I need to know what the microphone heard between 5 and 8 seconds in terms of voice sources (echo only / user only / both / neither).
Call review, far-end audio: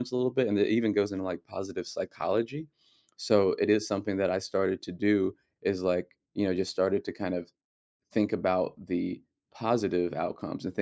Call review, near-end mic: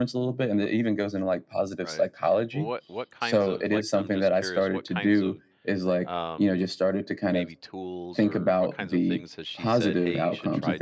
both